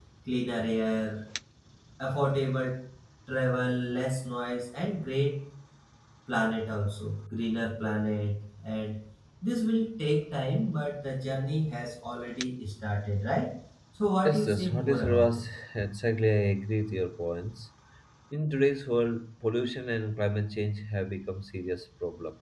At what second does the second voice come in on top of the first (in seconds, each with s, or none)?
14.2 s